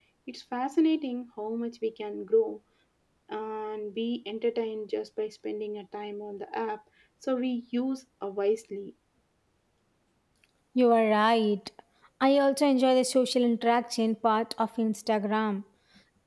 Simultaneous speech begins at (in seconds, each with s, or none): none